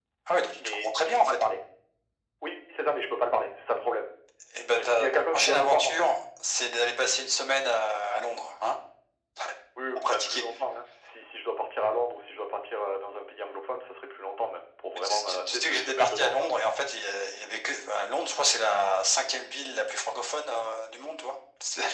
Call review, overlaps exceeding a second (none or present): present